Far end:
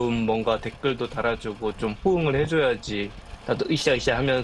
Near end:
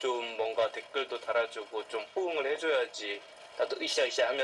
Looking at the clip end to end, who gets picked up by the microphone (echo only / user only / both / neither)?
echo only